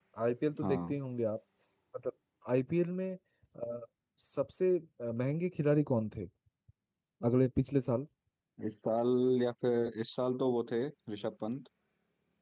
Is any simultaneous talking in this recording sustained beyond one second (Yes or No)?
No